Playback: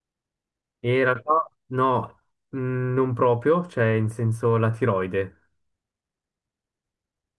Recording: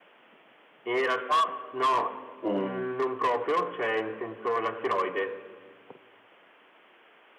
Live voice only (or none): O-